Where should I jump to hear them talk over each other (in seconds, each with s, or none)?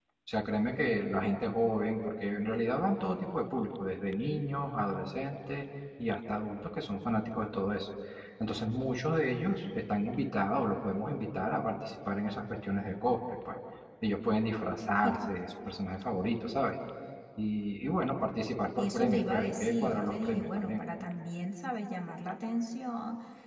18.8 s